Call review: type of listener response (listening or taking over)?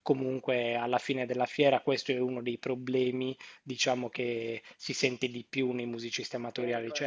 listening